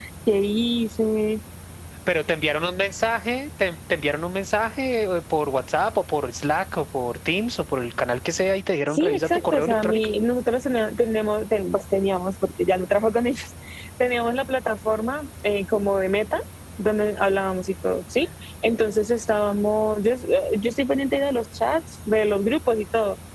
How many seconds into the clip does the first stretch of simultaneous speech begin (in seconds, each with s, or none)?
8.9 s